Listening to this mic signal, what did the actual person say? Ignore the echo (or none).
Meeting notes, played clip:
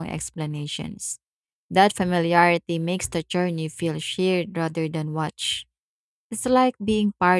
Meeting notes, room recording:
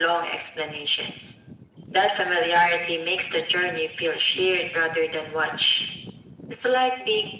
none